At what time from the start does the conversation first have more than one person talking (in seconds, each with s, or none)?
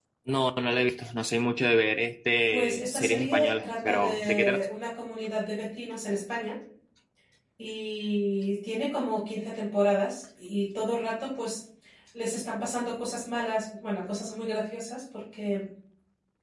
2.5 s